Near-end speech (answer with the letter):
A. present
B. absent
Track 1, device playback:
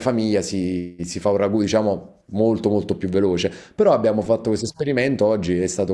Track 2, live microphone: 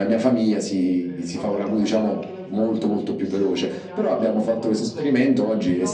A